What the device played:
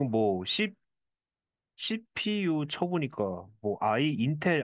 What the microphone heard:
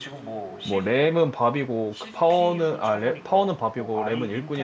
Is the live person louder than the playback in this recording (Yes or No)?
Yes